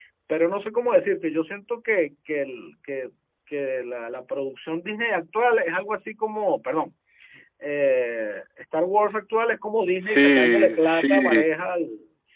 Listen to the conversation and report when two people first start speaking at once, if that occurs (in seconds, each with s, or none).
10.1 s